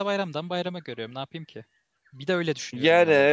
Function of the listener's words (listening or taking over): taking over